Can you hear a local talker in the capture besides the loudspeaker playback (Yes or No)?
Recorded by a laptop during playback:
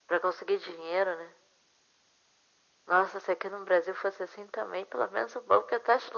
No